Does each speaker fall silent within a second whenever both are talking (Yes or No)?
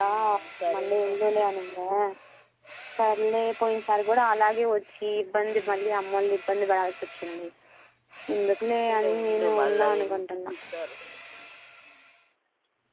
No